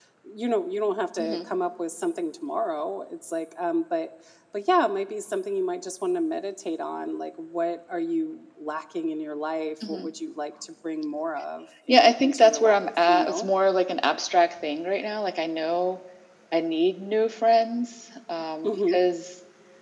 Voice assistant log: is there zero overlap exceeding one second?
No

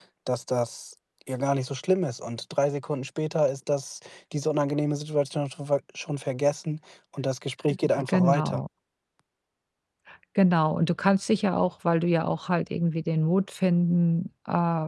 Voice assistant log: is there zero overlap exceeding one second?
Yes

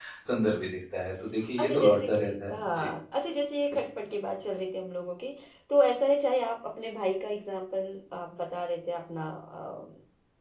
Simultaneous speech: Yes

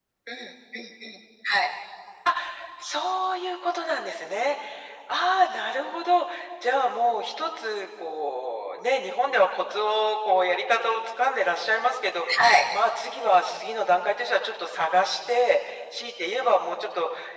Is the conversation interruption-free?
Yes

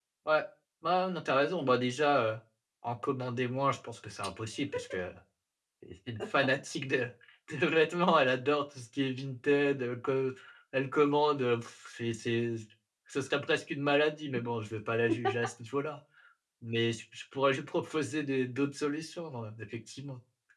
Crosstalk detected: No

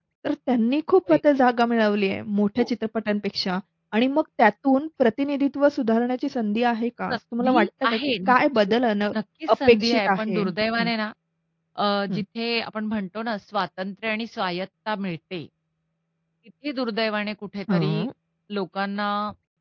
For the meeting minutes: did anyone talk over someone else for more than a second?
Yes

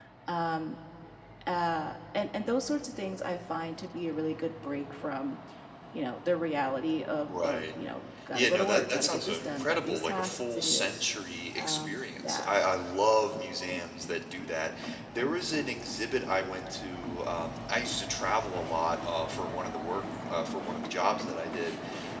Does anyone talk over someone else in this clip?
Yes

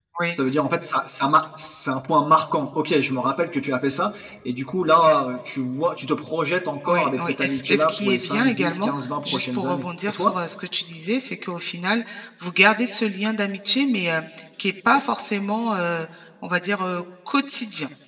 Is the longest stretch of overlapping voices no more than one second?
No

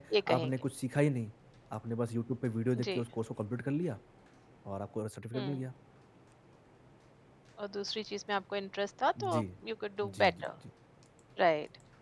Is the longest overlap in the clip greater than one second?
No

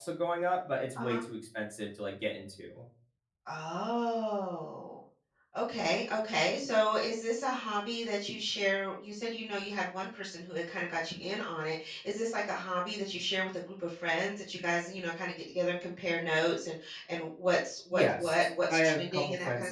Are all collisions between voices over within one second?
No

